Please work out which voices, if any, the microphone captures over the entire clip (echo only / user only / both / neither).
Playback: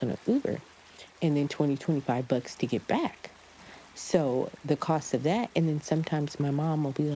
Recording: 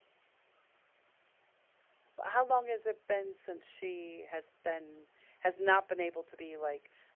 user only